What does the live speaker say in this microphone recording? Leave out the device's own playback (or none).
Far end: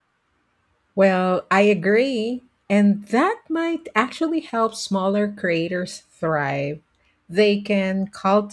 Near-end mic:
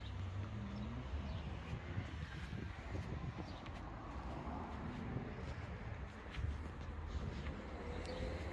none